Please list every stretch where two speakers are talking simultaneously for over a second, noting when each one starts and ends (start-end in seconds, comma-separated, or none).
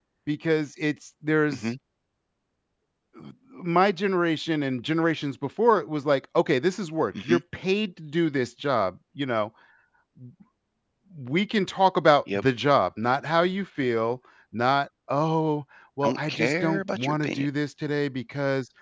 16.0-17.5